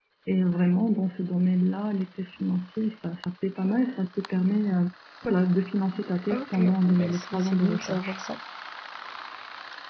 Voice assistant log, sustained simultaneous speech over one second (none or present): present